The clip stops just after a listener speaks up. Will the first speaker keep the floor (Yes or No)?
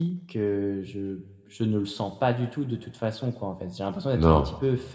Yes